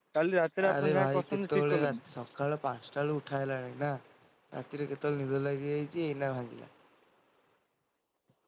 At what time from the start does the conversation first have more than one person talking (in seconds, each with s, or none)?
0.7 s